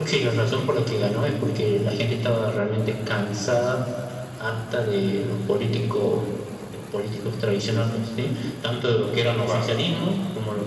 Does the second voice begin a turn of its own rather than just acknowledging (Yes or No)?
No